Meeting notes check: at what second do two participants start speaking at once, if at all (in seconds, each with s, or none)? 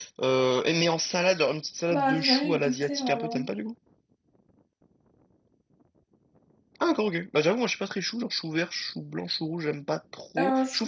1.9 s